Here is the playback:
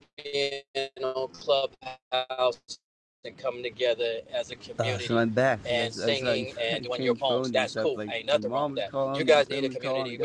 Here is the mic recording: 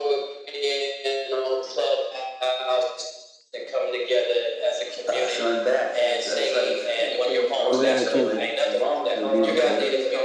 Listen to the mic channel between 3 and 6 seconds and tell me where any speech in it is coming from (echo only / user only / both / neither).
echo only